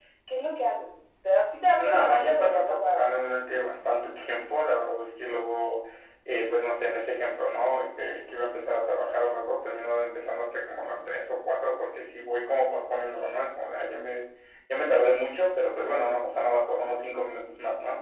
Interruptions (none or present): present